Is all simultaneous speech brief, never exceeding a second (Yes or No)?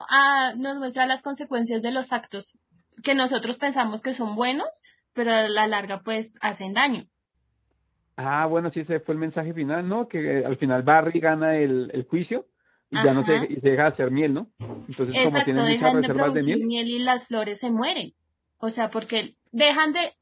No